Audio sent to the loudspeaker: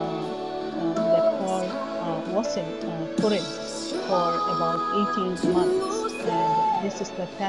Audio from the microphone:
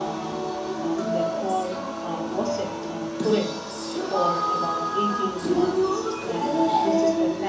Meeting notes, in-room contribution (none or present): present